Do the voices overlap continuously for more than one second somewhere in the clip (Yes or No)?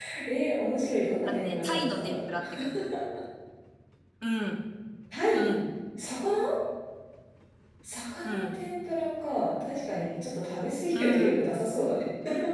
Yes